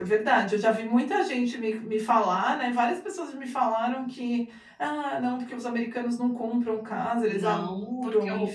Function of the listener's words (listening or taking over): taking over